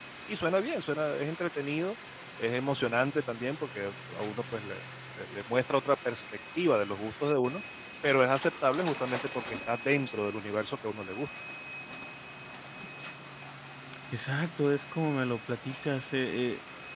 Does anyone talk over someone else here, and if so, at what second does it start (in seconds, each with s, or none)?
none